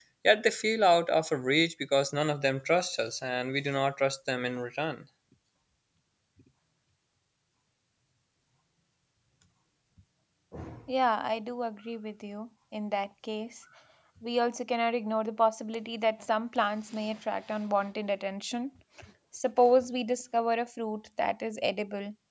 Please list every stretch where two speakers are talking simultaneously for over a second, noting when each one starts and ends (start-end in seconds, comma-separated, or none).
none